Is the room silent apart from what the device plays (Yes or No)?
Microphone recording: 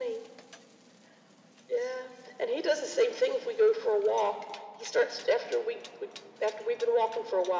Yes